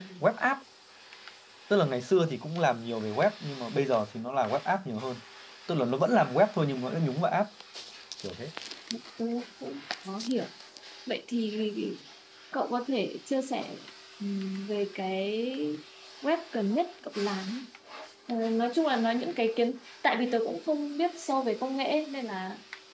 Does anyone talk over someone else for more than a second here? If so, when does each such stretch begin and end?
none

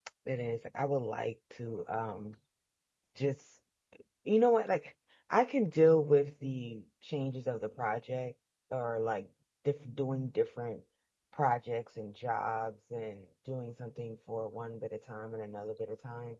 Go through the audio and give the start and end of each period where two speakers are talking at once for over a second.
none

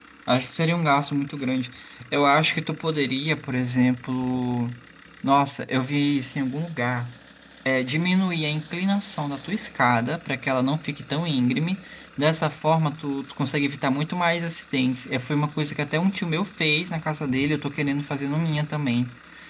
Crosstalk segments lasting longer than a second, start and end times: none

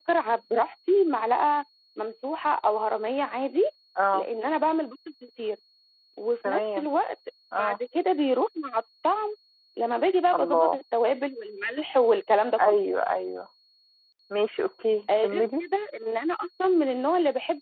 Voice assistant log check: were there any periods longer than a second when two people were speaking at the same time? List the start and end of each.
none

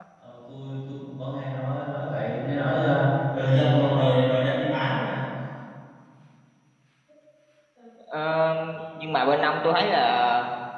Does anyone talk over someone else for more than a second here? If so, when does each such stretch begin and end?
none

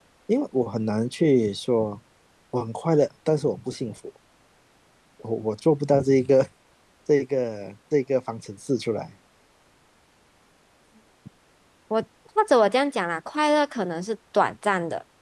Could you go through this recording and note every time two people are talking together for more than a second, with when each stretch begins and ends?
none

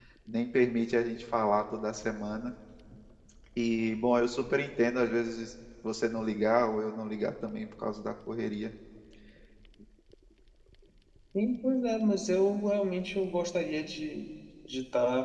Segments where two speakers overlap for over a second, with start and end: none

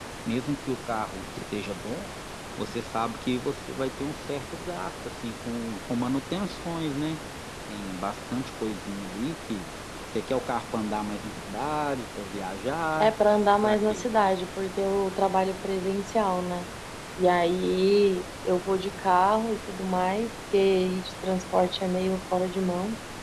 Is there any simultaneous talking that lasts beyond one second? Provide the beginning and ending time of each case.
none

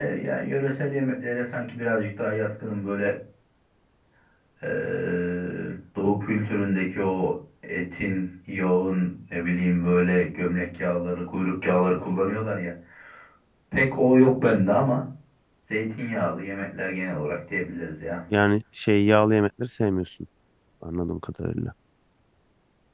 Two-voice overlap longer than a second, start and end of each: none

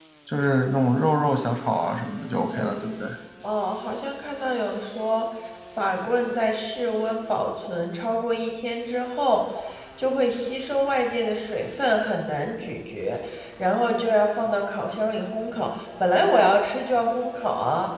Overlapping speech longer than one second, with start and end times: none

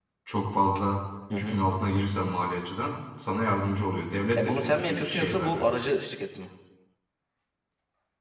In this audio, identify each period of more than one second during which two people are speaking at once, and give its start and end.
4.4-5.7

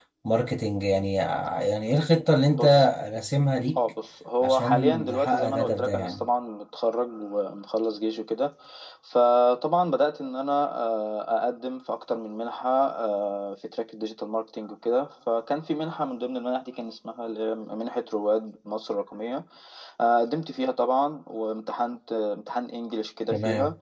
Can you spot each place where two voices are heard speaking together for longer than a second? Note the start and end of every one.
4.4-6.2

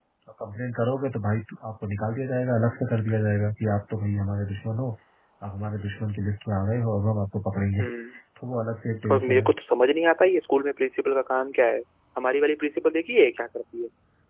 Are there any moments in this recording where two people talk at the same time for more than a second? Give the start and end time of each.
none

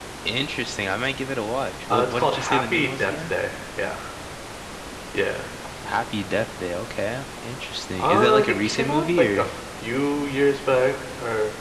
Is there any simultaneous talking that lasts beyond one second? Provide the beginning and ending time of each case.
1.9-3.3, 8.0-9.5

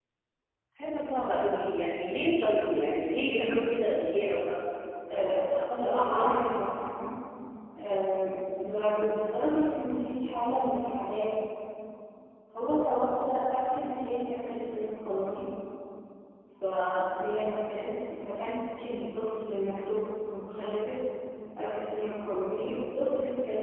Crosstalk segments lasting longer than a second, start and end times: 5.1-6.4

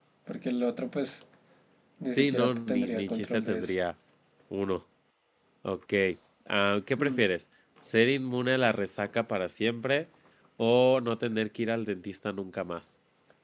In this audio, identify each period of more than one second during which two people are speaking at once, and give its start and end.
2.1-3.7

